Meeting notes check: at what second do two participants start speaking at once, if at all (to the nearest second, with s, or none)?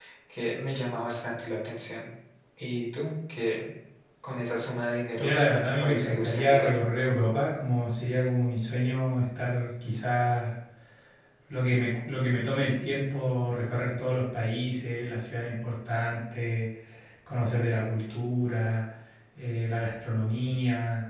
5 s